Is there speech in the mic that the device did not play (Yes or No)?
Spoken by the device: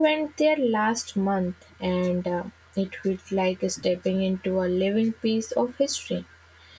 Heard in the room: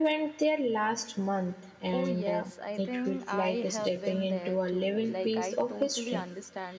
Yes